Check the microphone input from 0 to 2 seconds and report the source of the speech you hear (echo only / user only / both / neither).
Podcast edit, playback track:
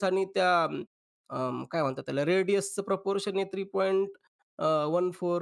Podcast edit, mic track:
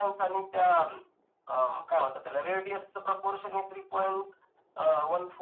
echo only